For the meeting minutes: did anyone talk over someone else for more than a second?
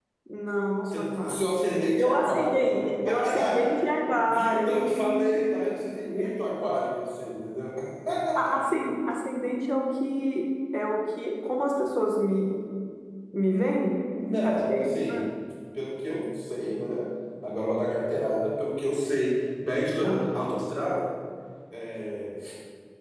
Yes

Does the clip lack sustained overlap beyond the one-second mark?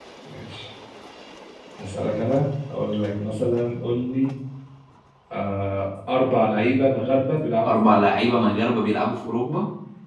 Yes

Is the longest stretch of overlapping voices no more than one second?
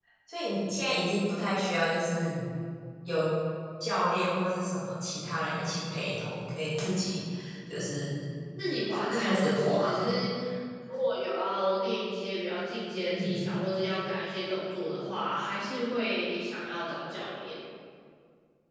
No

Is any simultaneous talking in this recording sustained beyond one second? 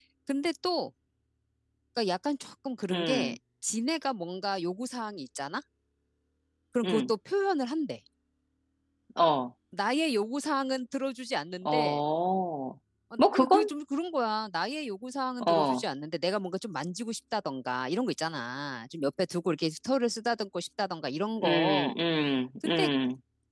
No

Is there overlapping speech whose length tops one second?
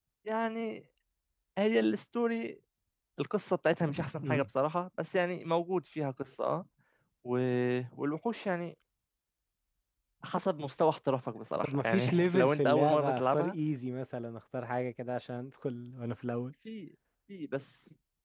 Yes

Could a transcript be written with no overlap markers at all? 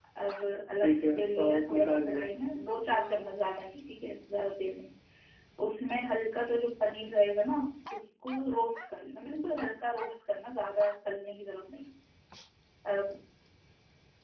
No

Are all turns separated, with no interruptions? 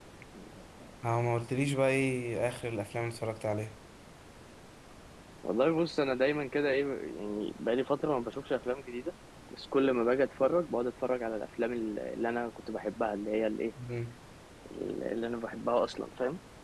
Yes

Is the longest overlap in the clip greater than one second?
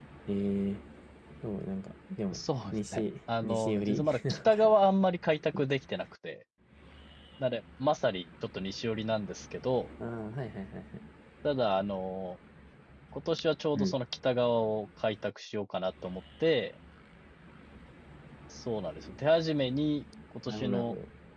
Yes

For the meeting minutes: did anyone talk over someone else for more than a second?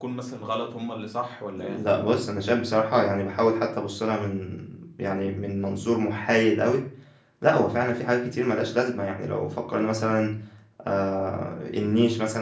No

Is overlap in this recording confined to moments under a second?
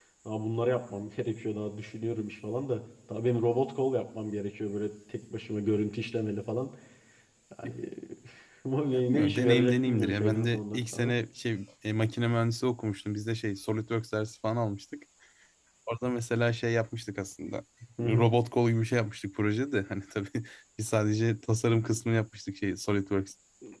No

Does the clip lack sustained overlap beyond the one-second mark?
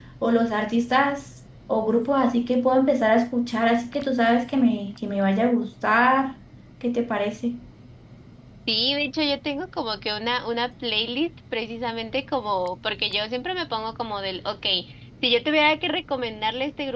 Yes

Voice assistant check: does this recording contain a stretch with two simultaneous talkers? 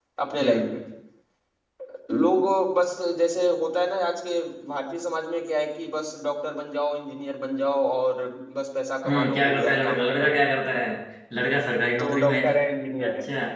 Yes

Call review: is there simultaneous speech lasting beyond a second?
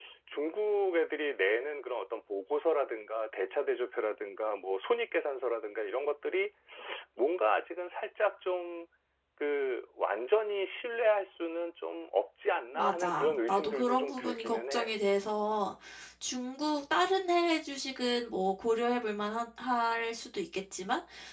Yes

